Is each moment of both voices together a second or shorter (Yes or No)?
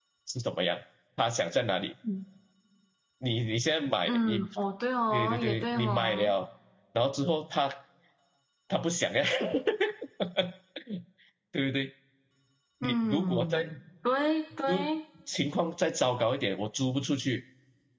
No